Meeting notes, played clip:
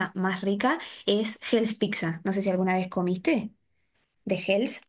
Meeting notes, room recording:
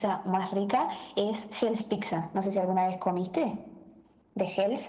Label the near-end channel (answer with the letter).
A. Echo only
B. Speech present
A